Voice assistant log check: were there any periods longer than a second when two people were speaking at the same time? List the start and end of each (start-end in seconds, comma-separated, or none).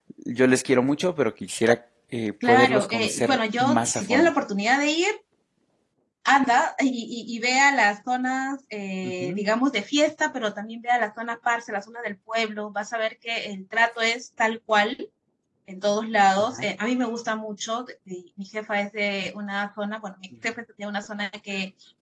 2.5-4.3